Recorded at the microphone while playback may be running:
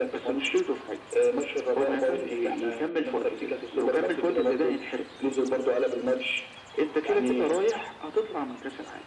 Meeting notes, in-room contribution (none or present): none